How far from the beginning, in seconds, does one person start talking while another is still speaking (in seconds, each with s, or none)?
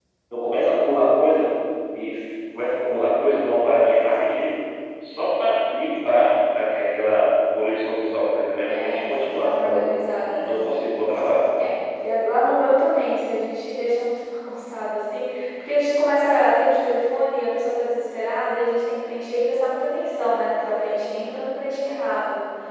8.6 s